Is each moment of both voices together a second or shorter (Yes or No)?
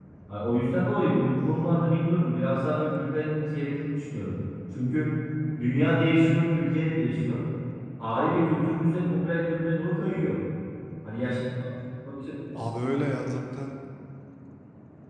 Yes